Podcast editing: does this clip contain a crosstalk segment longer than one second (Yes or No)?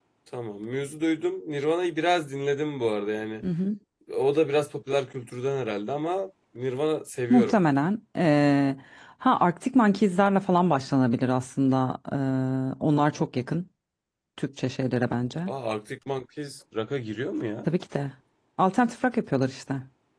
No